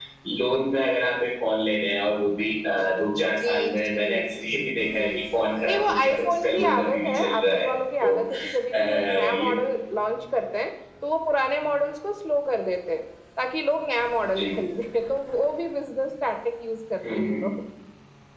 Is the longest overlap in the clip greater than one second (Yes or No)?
Yes